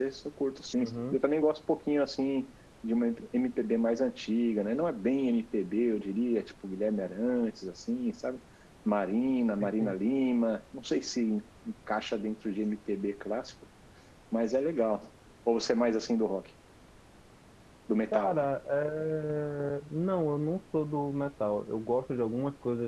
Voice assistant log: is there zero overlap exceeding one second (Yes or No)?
Yes